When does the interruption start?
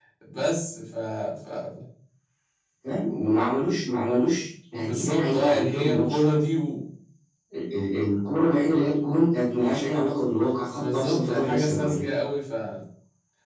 4.8 s

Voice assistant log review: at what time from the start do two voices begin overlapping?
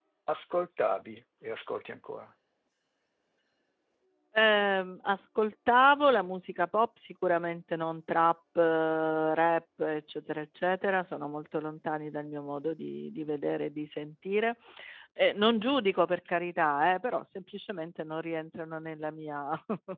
none

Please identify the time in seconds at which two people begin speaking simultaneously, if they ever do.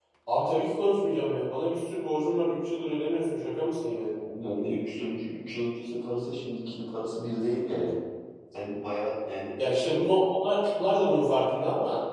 none

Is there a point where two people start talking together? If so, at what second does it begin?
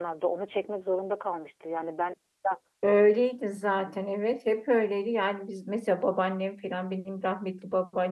none

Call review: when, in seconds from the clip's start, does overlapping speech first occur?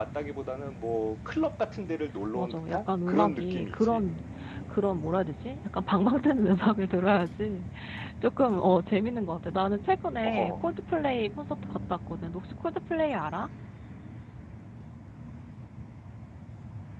2.4 s

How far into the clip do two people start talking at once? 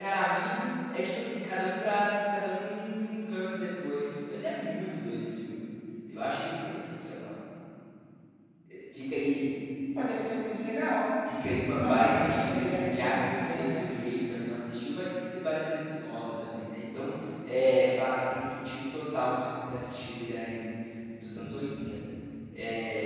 11.7 s

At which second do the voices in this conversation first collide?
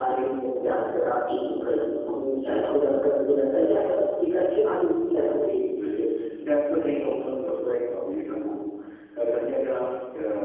none

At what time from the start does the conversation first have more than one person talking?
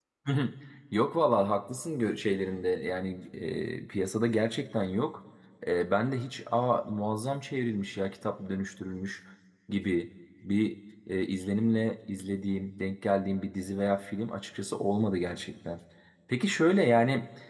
none

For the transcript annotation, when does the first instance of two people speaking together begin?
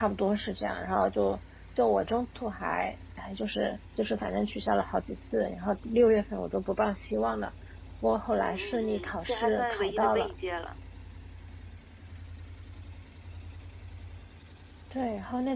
8.4 s

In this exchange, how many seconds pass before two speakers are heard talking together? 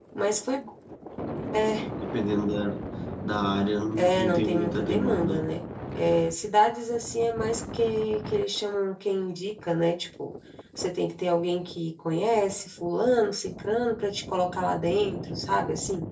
4.0 s

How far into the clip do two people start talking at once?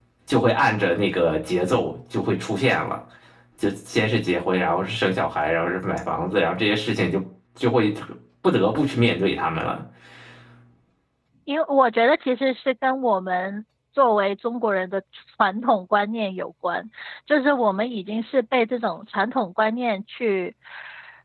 none

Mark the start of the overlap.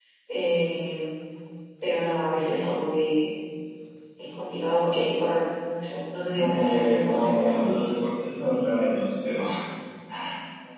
6.3 s

